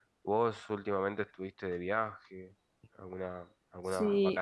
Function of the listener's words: taking over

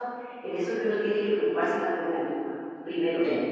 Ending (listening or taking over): listening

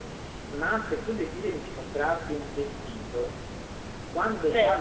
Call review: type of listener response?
listening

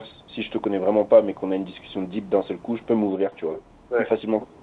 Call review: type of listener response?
listening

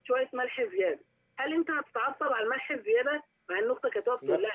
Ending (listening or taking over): listening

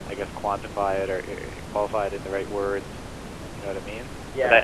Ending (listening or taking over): listening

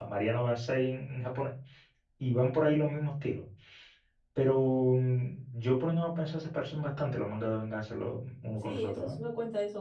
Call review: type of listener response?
taking over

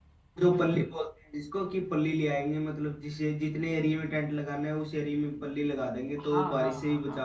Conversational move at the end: taking over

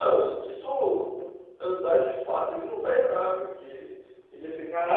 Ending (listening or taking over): taking over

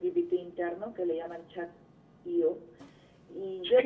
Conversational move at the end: listening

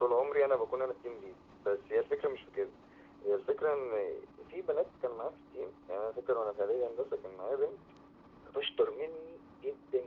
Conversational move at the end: listening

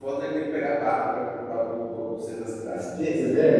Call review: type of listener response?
taking over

